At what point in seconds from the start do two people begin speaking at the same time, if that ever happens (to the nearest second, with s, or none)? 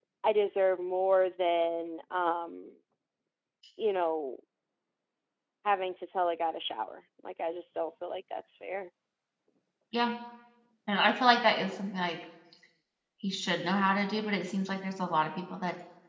none